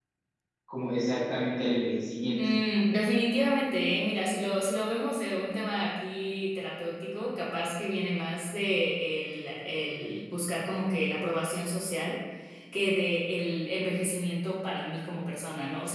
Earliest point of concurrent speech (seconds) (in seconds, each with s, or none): none